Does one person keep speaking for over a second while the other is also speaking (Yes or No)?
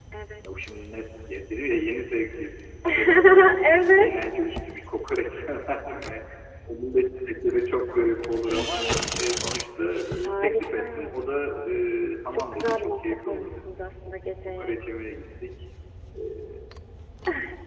Yes